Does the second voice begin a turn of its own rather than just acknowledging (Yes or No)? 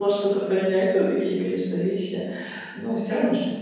No